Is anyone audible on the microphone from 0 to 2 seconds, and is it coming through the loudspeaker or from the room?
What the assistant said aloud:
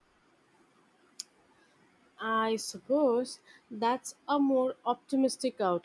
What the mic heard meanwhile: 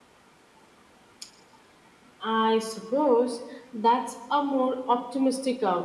neither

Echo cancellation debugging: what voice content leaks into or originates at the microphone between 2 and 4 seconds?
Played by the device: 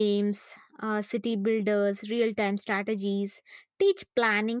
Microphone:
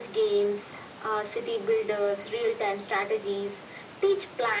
echo only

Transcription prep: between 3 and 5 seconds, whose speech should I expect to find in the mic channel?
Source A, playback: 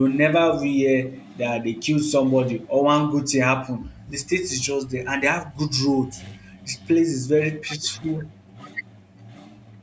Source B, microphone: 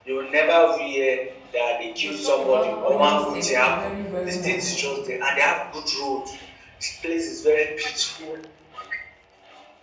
both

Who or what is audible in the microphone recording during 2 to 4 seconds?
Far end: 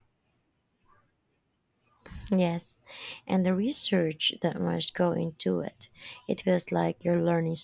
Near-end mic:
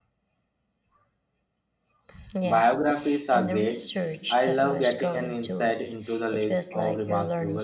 both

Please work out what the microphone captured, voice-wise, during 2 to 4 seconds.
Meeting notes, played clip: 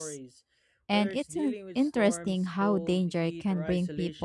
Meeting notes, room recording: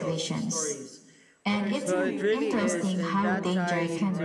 both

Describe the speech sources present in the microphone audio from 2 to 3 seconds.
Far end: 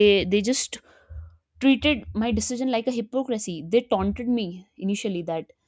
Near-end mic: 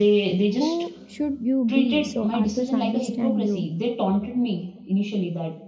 both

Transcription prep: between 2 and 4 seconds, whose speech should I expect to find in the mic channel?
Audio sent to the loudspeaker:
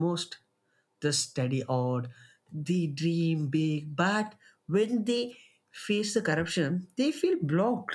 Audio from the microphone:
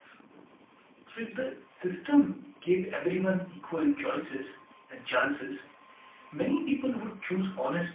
user only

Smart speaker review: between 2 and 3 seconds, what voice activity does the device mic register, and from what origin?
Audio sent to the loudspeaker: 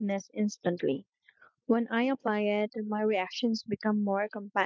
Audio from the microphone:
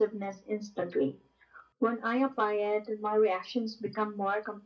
echo only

